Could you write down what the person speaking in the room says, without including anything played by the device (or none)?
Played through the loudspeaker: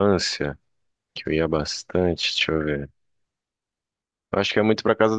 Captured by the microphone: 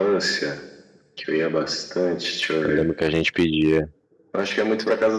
Eu lembro que a gente pedia.